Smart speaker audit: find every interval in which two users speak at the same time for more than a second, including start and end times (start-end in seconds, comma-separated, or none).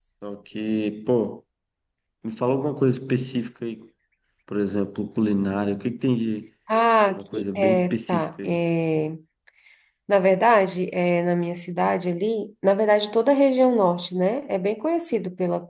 7.2-8.6